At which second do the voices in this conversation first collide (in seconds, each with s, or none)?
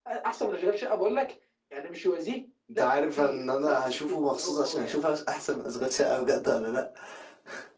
2.7 s